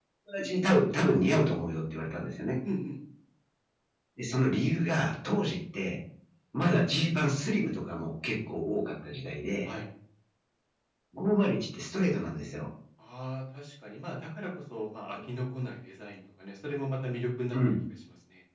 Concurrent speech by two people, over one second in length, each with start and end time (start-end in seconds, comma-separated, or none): none